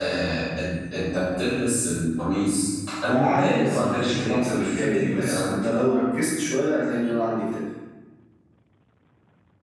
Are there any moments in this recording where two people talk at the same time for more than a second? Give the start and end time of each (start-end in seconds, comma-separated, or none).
3.0-5.8